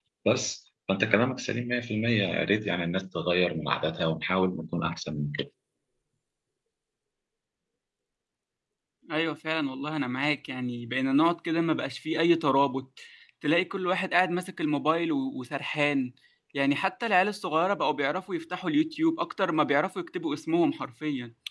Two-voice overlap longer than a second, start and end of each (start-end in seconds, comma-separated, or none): none